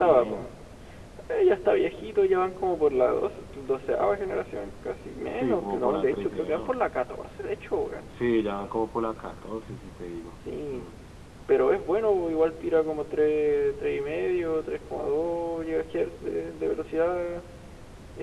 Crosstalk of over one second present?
Yes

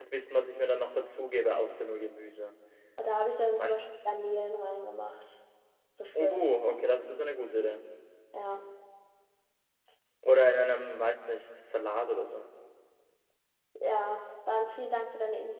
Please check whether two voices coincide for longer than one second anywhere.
No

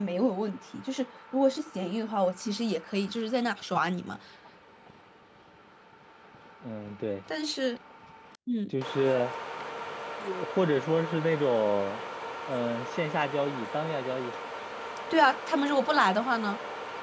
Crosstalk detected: No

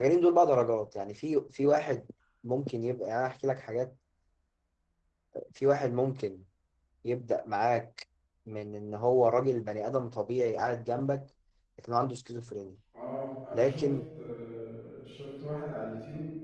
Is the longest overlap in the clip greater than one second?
No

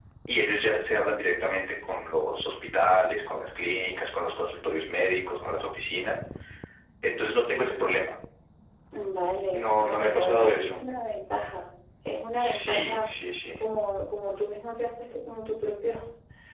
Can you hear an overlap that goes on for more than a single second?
Yes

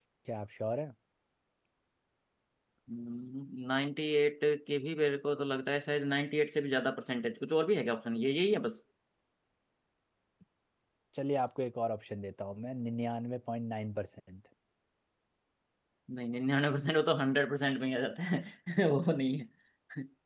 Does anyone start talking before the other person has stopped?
No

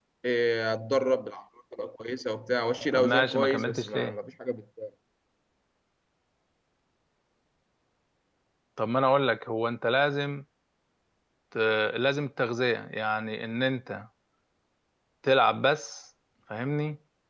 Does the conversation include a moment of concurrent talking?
Yes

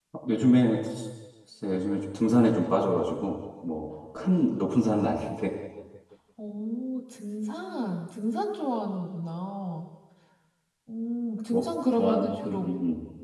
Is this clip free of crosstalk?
No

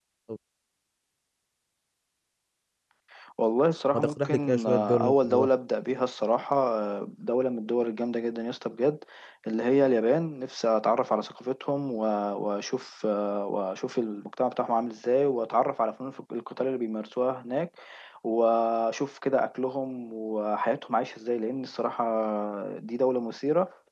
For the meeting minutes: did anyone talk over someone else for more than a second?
Yes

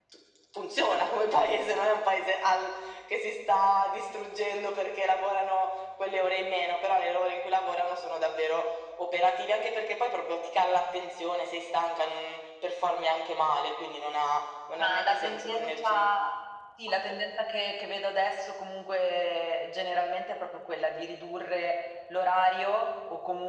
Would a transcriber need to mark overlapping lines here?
Yes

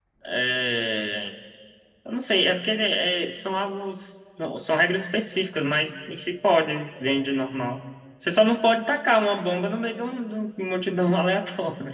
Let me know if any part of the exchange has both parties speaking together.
No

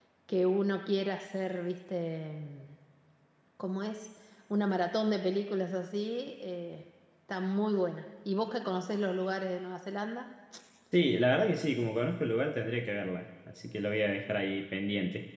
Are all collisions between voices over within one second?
Yes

